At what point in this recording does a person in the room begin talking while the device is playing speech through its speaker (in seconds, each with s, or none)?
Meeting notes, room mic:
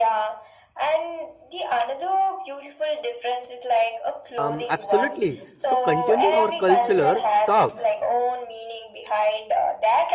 4.4 s